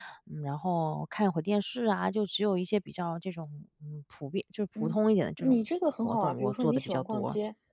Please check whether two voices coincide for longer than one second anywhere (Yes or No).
Yes